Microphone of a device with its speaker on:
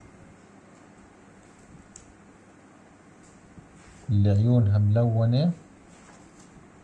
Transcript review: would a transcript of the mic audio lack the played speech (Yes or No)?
Yes